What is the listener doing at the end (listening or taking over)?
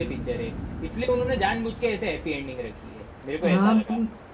taking over